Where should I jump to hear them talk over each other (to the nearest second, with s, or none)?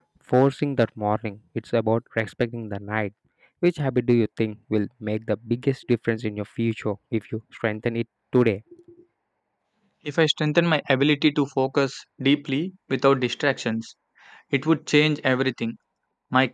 none